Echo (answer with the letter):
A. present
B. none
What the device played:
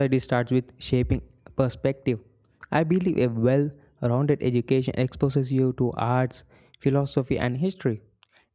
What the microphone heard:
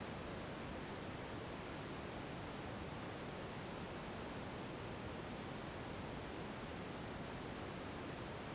B